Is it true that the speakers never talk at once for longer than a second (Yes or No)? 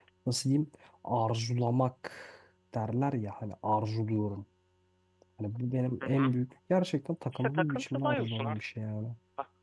No